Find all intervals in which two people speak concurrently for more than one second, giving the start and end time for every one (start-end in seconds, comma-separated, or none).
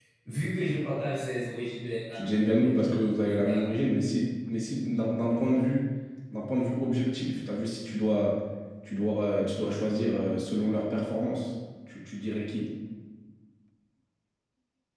2.1-3.7